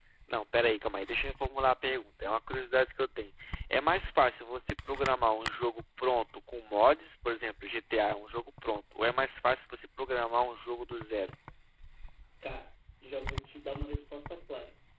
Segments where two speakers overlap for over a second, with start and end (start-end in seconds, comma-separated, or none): none